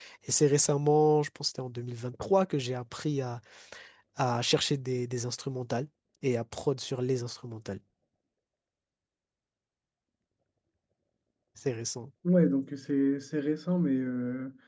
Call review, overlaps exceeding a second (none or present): none